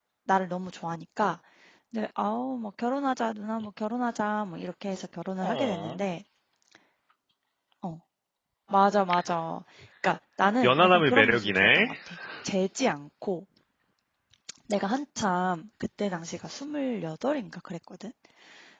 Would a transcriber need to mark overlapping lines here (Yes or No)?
Yes